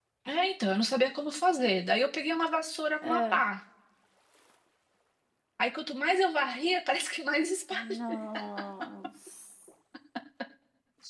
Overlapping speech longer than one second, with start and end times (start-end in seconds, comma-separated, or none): none